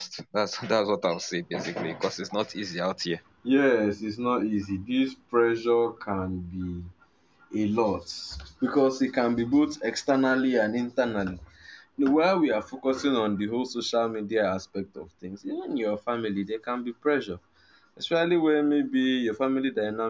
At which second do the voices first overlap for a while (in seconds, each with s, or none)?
none